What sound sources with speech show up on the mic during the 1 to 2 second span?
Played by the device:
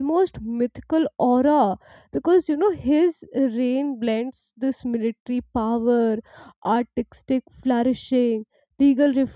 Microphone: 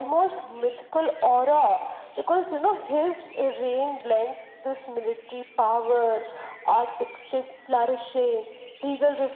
echo only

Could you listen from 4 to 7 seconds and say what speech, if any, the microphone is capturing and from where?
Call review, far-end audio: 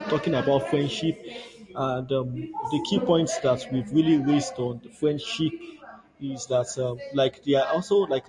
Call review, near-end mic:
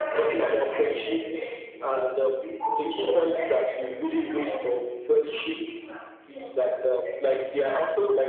echo only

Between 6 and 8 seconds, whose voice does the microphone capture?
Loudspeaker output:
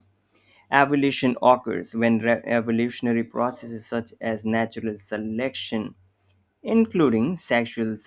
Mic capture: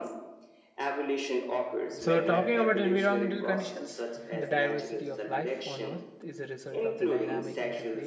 both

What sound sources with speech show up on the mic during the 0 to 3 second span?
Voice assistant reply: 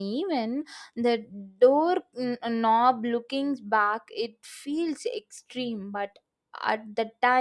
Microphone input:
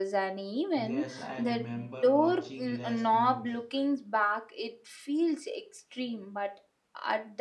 both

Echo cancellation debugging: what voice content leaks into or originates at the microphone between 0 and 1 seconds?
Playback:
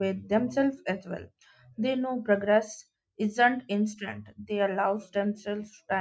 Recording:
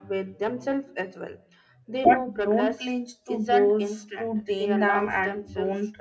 echo only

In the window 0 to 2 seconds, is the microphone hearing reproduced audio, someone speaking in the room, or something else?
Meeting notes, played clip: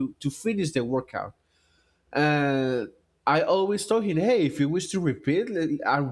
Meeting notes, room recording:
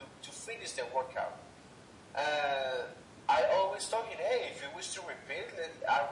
echo only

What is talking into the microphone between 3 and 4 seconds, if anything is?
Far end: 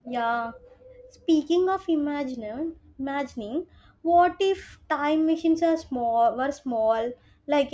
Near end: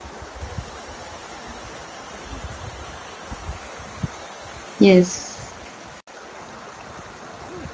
neither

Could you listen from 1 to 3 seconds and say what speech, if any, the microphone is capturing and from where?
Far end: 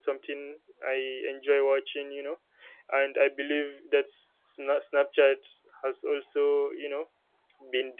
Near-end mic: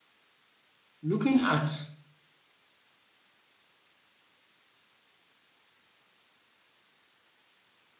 user only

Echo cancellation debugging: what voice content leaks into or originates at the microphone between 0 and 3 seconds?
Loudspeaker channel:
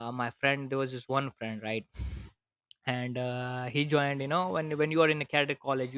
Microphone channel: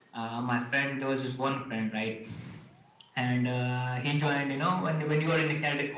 echo only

